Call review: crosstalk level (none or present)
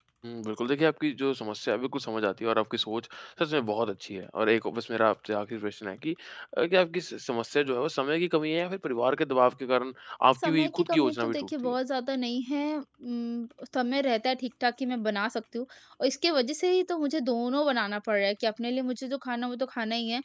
present